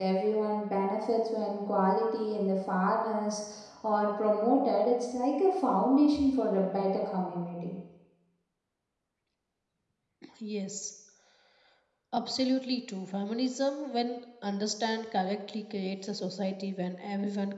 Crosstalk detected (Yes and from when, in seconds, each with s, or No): No